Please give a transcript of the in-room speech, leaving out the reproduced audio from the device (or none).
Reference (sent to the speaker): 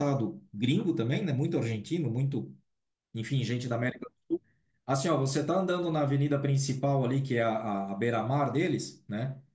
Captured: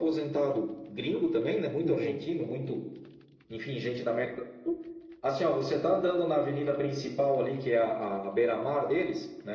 uhum.